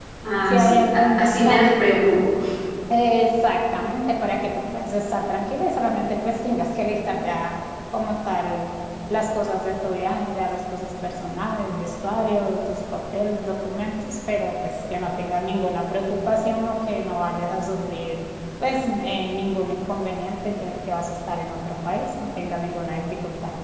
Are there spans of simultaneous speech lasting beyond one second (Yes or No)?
Yes